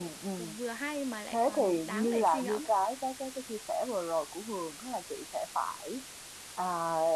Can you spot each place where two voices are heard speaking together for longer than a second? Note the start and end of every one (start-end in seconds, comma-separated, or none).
1.3-2.7